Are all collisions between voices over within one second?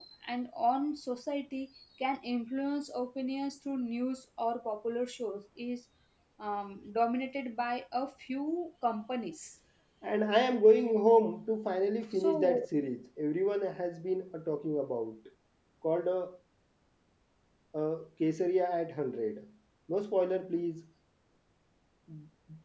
Yes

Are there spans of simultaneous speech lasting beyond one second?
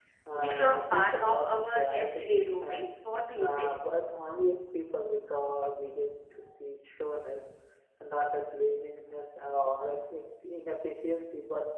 Yes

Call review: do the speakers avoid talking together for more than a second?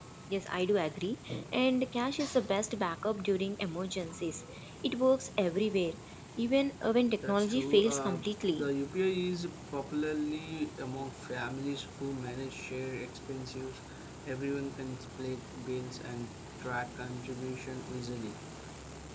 No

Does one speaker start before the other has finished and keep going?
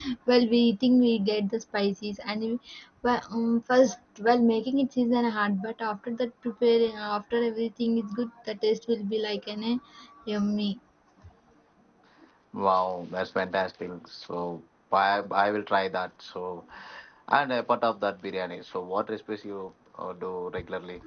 No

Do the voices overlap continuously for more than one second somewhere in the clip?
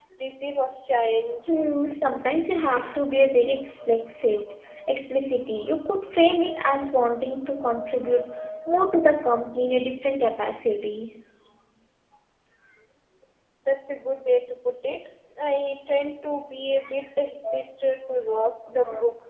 No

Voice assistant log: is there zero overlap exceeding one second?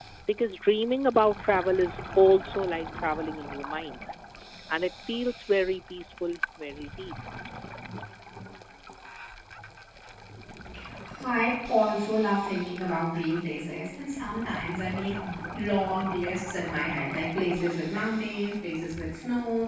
Yes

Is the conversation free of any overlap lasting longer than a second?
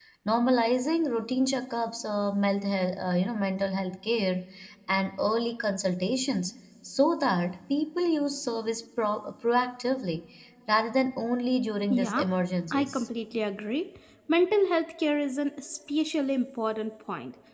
Yes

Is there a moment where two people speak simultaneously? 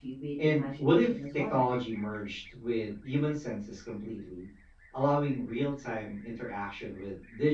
Yes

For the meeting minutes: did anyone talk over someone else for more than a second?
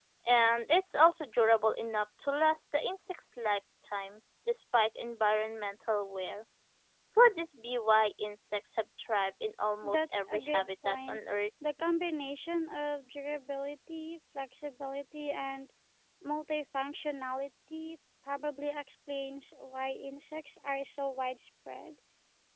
Yes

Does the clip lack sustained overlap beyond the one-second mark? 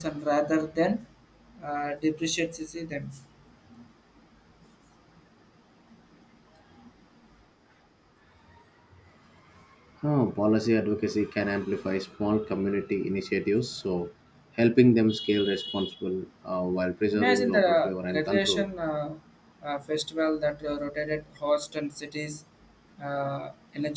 No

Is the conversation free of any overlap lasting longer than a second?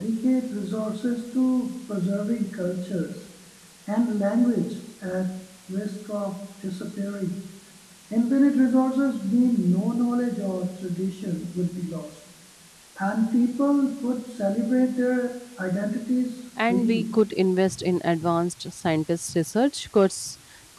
Yes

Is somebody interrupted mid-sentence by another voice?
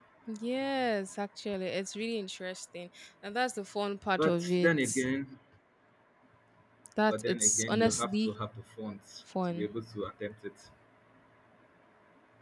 Yes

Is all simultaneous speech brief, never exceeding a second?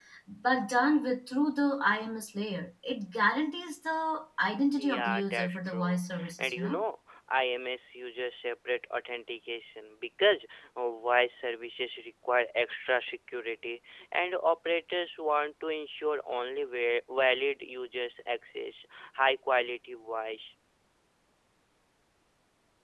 No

